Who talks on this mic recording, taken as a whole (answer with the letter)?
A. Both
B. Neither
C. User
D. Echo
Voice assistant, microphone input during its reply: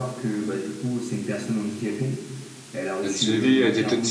A